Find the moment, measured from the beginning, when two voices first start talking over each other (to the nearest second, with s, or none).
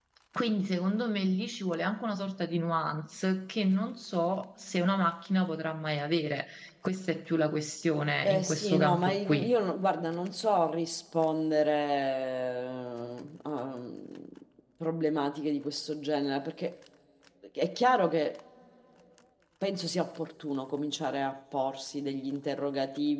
8 s